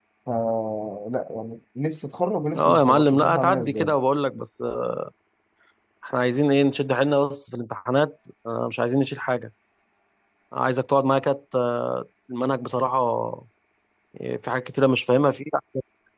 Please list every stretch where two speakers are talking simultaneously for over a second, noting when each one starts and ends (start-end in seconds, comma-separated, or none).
2.6-3.9